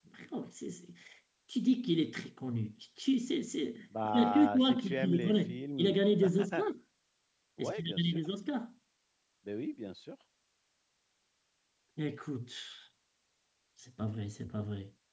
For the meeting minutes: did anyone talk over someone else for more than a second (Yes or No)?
Yes